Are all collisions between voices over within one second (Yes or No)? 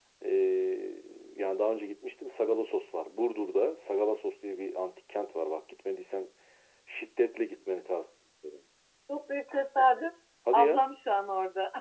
Yes